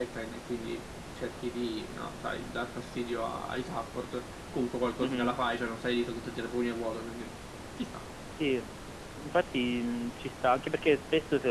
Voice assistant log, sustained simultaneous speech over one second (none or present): none